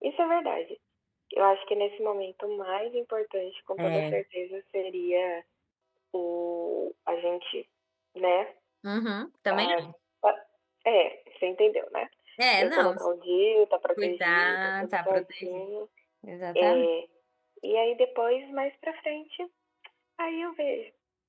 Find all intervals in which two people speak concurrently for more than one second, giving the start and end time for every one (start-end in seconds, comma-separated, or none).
14.0-15.6